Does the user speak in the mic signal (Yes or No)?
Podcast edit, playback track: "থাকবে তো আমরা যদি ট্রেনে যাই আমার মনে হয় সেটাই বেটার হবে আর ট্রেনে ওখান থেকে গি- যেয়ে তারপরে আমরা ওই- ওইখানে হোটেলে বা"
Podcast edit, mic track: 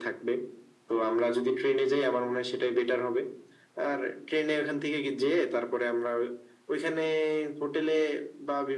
No